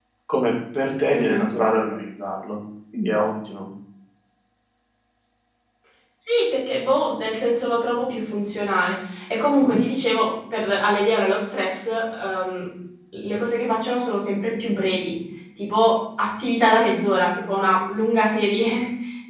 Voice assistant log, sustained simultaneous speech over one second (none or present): none